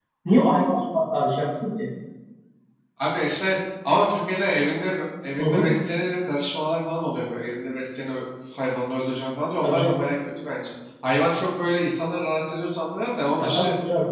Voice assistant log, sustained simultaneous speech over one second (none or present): none